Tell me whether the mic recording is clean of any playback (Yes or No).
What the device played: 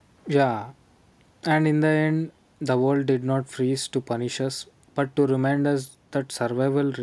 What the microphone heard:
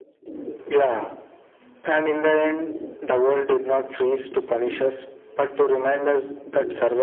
No